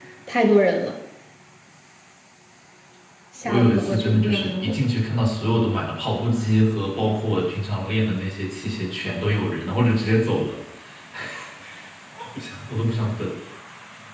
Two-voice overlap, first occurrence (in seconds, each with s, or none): 3.4 s